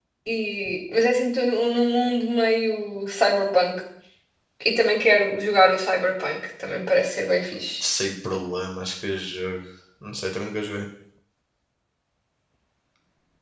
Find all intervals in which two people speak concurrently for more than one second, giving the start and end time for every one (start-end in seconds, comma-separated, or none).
none